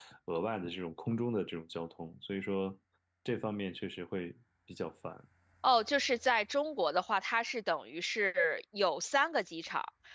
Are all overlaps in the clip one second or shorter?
Yes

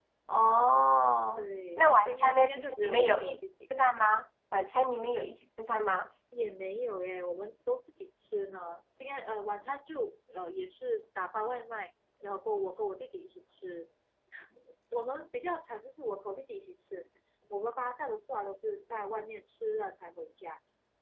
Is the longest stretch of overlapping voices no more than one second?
No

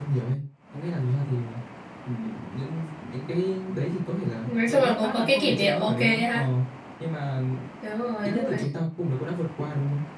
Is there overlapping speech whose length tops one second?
Yes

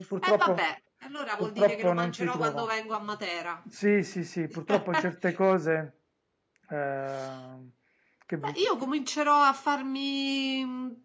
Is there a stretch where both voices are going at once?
Yes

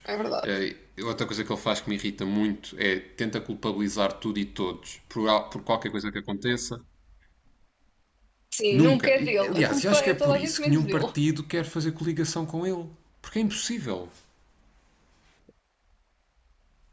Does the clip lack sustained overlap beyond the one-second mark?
No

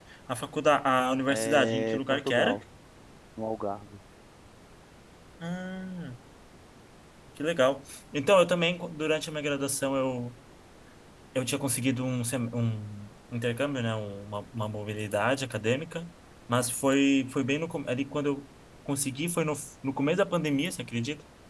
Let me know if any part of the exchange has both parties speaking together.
Yes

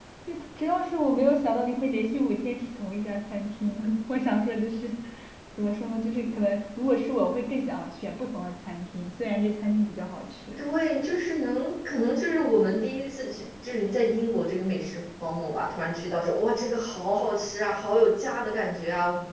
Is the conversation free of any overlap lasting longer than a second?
Yes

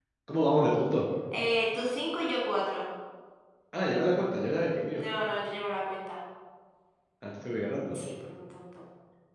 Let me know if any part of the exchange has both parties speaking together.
No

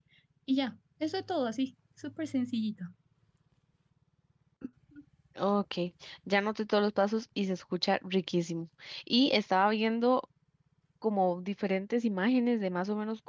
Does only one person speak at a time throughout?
Yes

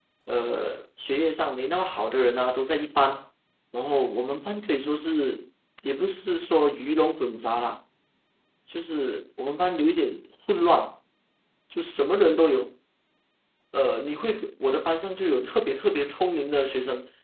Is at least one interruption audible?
No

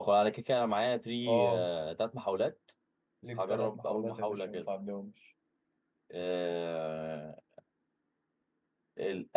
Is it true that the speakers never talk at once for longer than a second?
No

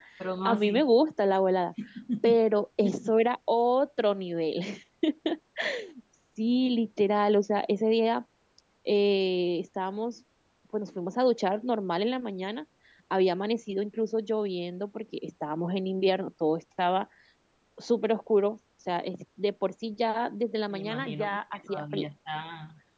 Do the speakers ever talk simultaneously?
Yes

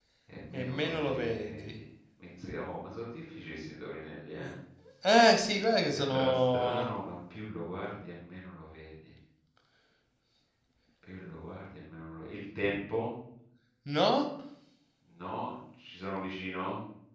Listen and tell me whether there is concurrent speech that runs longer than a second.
Yes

